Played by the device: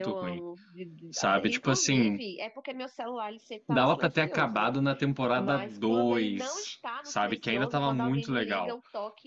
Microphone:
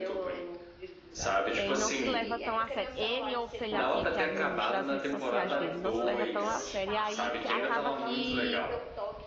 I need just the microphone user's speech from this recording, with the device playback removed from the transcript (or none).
Ele não se leva tão a sério. Ele ou sei lá quem é que administra as redes sociais dele, não se leva tão a sério. E aí que- acaba que